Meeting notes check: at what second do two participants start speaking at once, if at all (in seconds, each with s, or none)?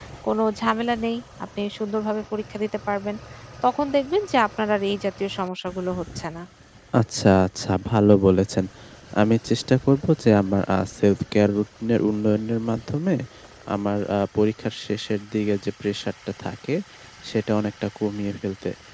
none